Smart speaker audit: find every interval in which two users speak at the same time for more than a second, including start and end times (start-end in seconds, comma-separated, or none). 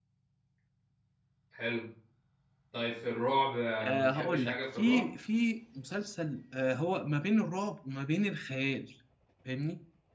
3.8-5.0